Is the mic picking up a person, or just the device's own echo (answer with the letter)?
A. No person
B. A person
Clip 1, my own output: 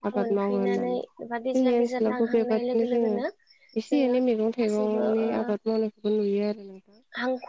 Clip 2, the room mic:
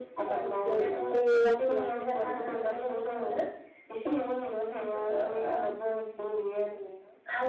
B